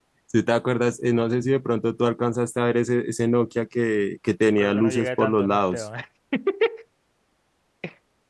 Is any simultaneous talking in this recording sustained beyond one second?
Yes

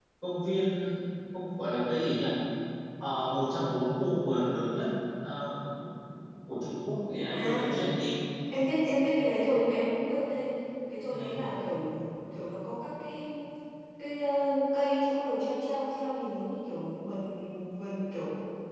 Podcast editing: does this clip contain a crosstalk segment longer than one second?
No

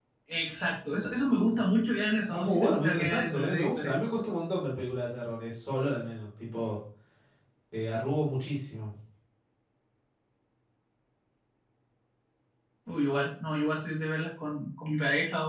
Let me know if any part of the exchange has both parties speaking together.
Yes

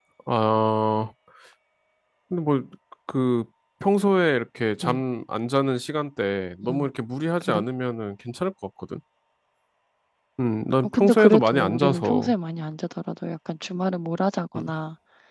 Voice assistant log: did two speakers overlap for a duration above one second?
Yes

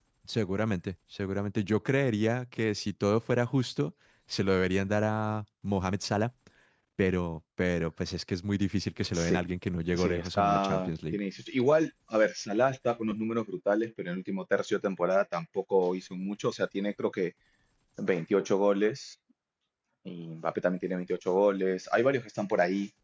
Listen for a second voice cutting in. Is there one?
Yes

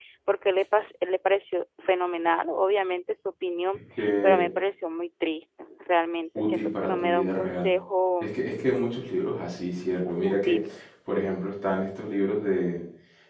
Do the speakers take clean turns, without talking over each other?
No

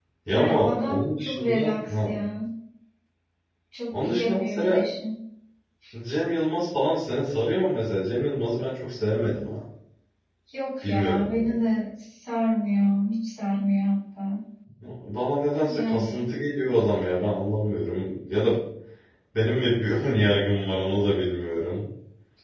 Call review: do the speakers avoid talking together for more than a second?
No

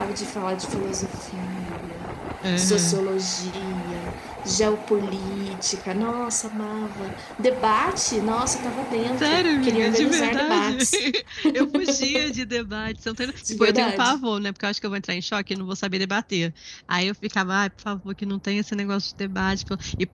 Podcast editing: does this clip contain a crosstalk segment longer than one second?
Yes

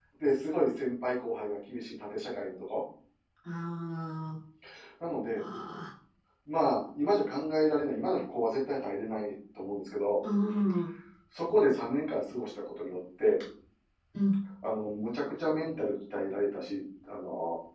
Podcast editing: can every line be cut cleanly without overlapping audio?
Yes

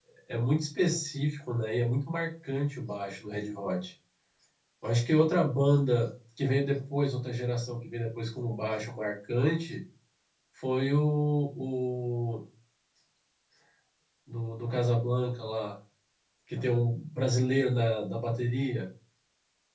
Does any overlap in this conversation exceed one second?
No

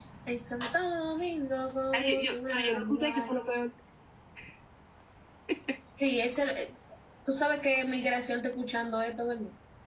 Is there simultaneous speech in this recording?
Yes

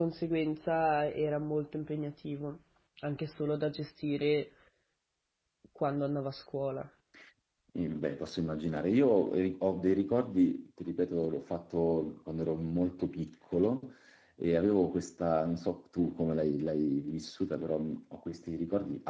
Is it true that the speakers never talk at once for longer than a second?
Yes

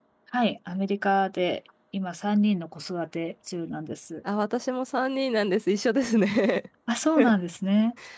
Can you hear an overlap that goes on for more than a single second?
No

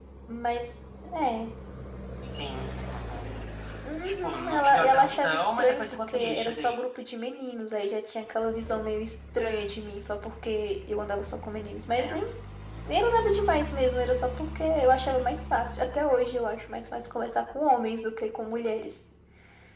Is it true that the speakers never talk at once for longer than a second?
No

